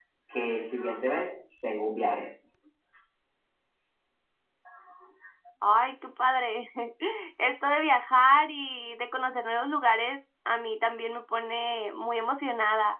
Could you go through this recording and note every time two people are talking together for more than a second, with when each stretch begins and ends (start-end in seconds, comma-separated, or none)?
none